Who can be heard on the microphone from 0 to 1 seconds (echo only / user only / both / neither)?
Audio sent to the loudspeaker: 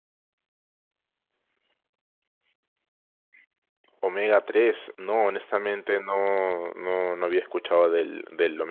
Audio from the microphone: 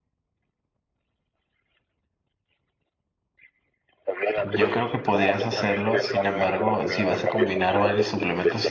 neither